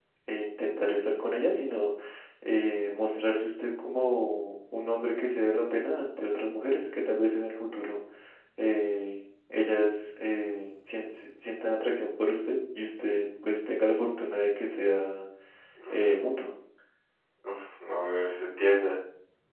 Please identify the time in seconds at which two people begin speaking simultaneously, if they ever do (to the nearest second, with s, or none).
none